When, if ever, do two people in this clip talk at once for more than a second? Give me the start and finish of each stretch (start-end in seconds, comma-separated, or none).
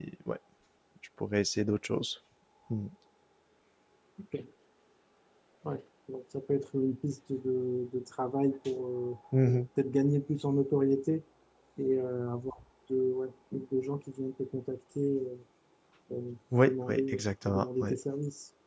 16.5-17.9